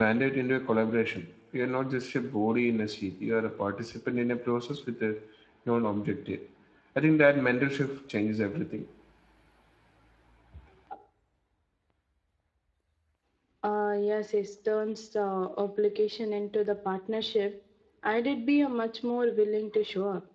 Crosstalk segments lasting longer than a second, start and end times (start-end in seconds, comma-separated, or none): none